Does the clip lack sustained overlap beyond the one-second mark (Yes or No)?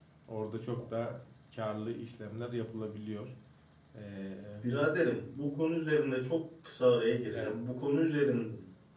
Yes